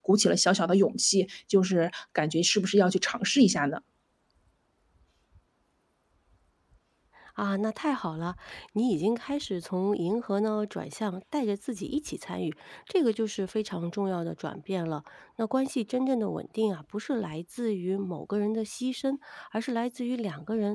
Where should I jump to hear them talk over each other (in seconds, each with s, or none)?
none